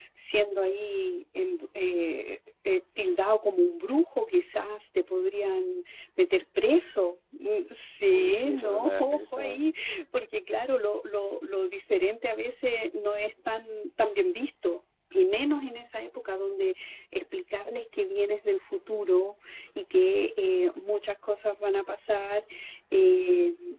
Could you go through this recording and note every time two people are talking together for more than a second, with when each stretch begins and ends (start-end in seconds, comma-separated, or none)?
8.1-9.6